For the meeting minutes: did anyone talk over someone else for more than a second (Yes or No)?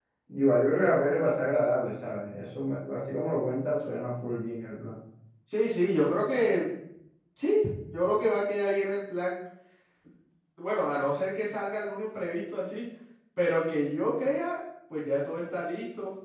No